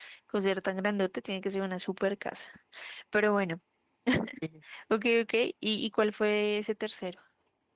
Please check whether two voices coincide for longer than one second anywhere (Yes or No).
No